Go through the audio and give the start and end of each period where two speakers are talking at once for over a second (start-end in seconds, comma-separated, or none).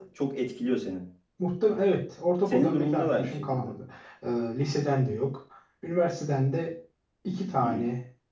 2.5-3.7